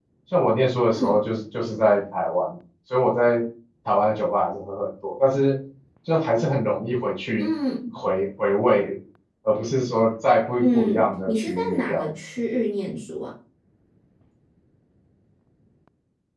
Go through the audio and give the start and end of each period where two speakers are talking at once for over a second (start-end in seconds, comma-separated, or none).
10.6-12.1